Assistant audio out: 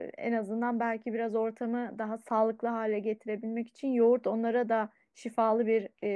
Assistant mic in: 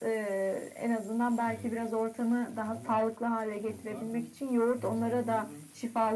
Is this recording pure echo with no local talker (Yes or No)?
No